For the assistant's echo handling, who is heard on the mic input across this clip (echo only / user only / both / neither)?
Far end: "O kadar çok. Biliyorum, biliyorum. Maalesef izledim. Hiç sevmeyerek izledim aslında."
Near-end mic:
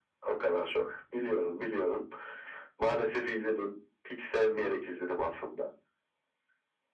echo only